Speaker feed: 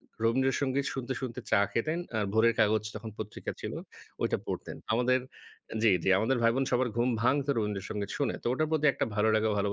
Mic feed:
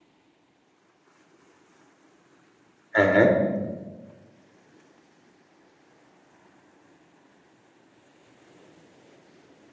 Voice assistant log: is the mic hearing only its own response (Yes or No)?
No